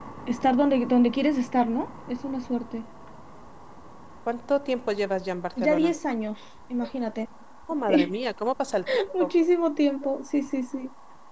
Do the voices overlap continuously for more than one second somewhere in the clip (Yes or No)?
No